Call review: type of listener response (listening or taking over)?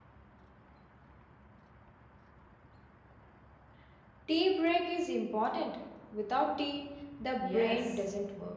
taking over